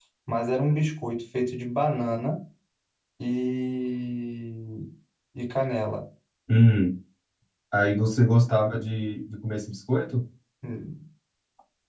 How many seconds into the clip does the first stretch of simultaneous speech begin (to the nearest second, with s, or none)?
none